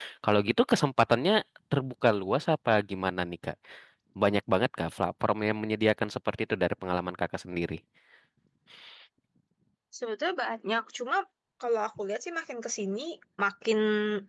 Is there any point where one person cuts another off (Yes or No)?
No